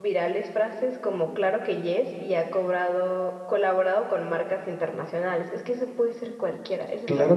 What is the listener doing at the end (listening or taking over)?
taking over